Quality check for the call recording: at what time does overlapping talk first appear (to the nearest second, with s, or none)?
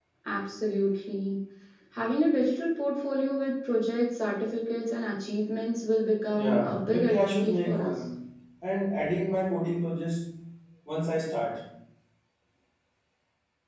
6 s